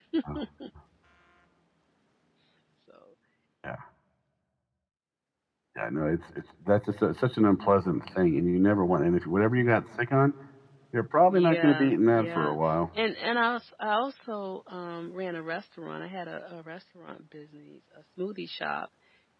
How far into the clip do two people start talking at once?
11 s

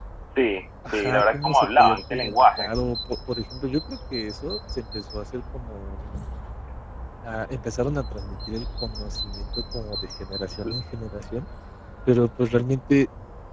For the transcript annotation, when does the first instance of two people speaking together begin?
1 s

